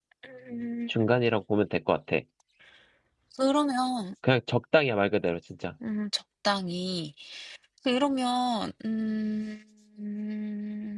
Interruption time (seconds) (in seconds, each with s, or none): none